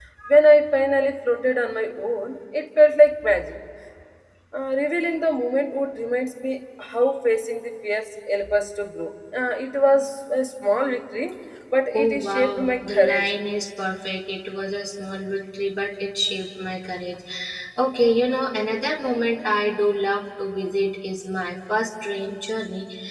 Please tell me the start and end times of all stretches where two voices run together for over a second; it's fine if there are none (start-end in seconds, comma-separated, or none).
11.9-13.3